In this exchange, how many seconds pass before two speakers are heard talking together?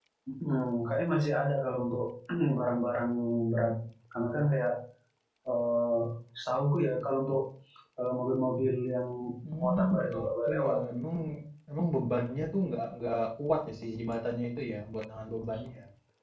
10 s

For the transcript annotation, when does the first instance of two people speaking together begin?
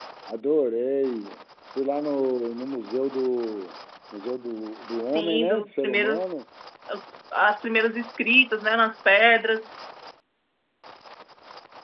5 s

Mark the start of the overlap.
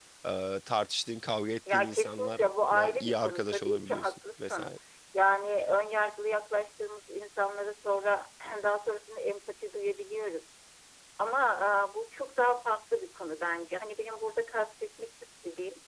2 s

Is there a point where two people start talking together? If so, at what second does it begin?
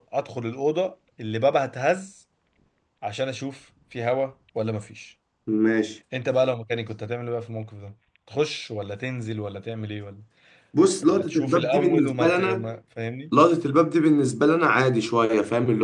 11 s

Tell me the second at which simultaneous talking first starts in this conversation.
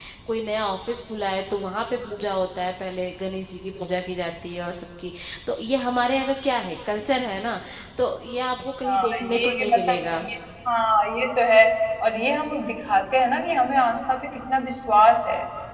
9 s

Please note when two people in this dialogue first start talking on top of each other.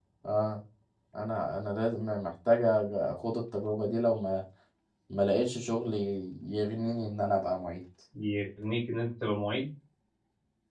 none

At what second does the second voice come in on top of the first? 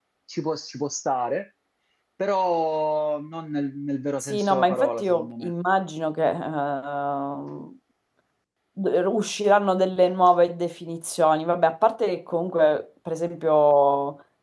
4 s

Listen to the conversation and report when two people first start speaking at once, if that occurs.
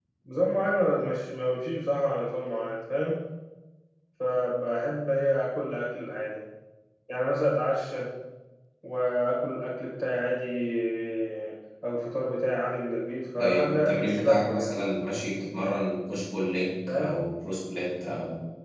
13 s

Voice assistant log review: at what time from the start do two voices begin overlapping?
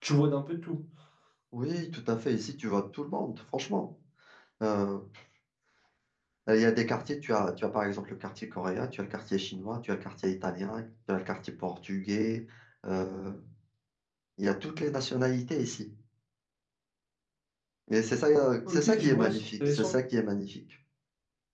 19 s

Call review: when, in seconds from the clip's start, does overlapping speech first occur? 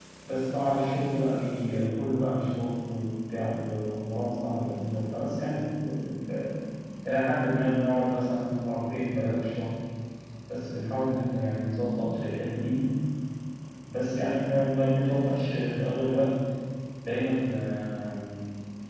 none

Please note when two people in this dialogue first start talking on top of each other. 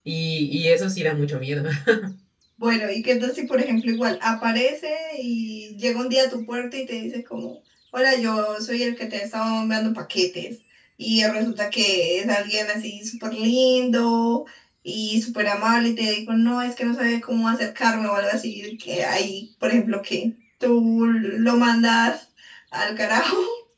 none

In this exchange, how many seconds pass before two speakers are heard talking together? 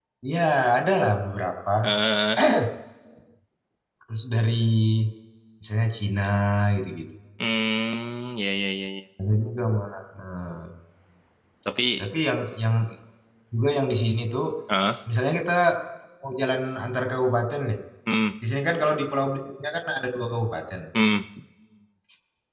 none

